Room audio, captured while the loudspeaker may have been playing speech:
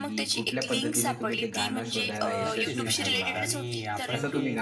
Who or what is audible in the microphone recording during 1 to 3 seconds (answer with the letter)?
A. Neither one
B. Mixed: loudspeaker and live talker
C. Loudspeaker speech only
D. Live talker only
B